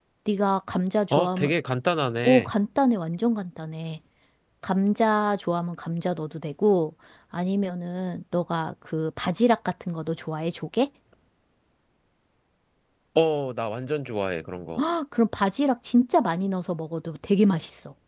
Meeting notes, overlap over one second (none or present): none